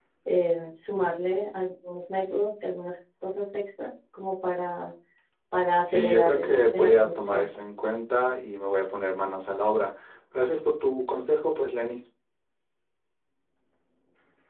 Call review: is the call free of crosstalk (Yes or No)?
No